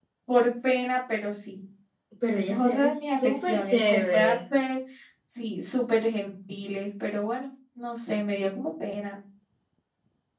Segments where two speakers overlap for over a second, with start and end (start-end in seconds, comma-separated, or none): 2.3-4.4